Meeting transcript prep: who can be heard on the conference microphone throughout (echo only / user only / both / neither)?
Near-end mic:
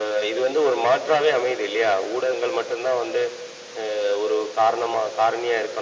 echo only